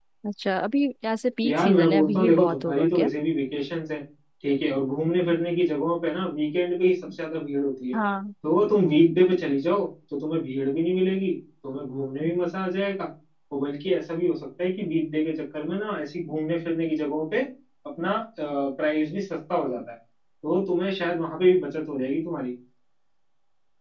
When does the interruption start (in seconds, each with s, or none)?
1.4 s